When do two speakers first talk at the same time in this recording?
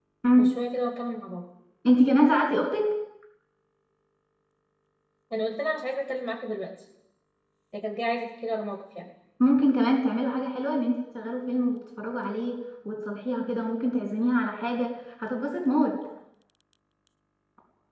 none

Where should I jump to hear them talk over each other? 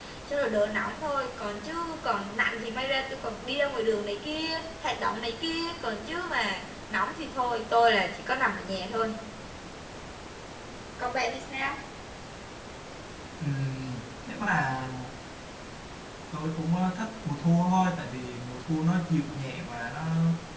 none

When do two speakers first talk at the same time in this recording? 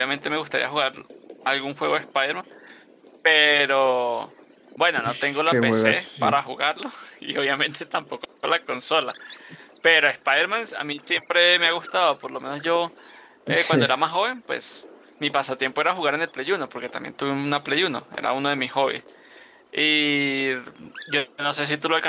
5 s

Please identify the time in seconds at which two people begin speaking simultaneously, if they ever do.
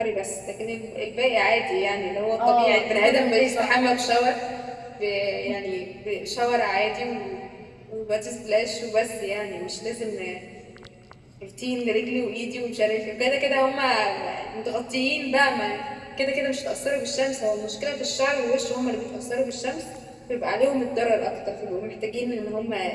2 s

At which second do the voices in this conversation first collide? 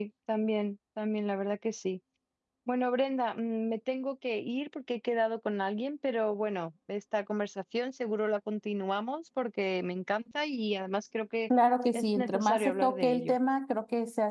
12 s

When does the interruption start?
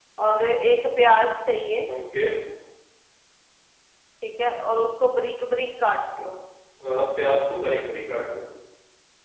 none

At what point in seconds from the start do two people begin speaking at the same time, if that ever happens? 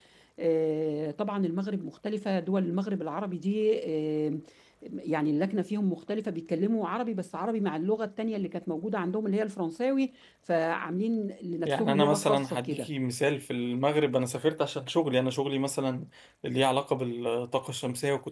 12 s

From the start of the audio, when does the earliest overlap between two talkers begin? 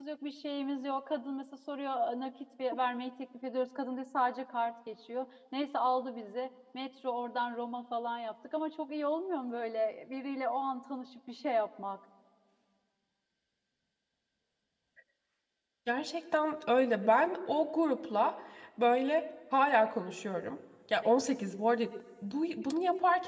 none

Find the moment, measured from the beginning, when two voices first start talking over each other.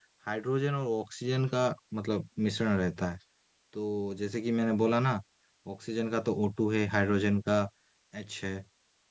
none

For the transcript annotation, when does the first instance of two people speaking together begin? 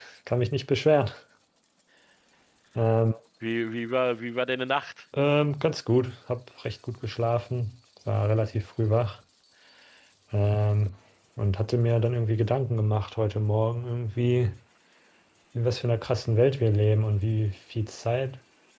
none

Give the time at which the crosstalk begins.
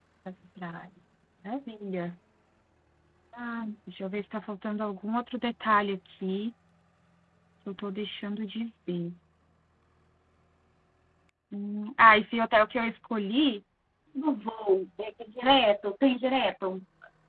none

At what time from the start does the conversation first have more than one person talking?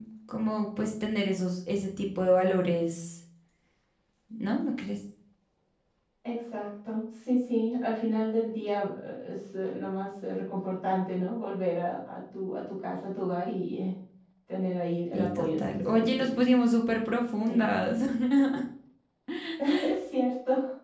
15 s

